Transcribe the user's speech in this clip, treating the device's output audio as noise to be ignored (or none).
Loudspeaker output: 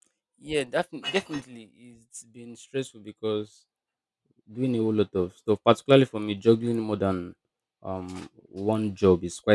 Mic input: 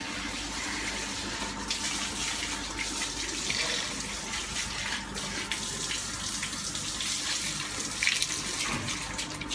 none